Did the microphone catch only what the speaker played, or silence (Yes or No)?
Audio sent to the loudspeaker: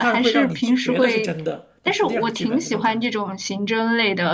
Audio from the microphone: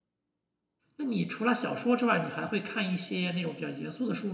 No